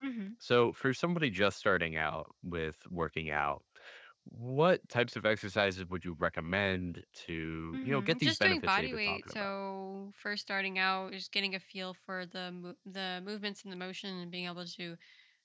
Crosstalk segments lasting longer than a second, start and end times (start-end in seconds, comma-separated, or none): 7.7-9.5